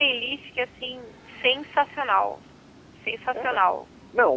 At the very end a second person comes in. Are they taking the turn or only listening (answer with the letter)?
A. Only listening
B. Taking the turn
B